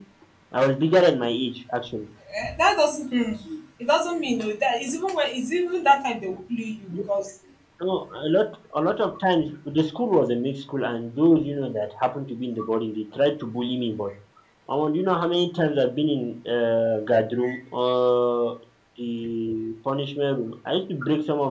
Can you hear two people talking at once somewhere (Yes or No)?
No